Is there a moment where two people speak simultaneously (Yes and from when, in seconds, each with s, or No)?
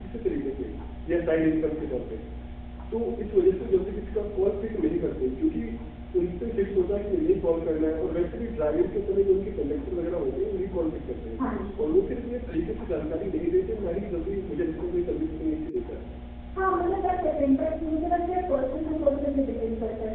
No